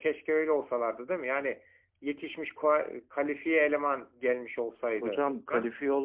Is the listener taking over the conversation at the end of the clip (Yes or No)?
Yes